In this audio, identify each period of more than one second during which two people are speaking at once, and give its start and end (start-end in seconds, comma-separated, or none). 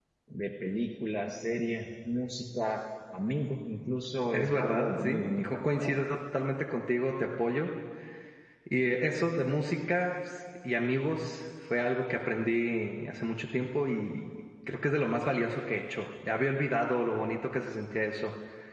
4.3-6.0